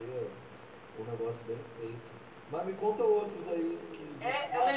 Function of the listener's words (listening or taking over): taking over